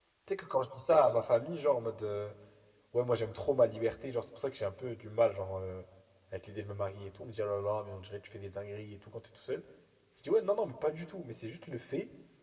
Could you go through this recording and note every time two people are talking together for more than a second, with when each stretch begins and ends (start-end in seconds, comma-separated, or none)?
none